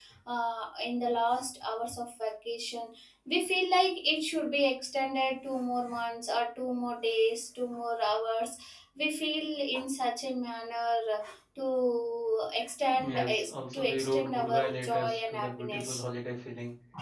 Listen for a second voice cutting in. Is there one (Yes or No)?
Yes